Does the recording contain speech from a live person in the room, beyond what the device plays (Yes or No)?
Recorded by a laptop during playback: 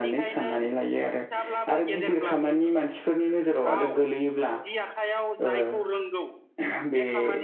Yes